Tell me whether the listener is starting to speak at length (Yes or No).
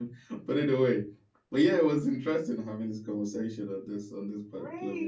Yes